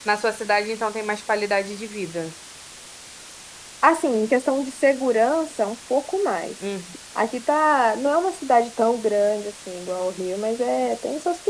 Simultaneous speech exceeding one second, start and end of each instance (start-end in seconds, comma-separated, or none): none